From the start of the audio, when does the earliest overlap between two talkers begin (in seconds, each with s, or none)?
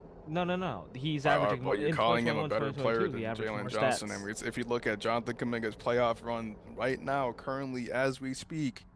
1.2 s